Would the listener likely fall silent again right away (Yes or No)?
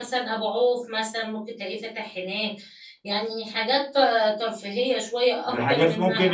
No